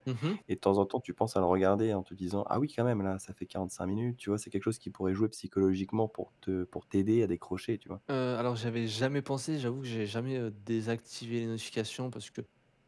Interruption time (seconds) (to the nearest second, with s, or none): none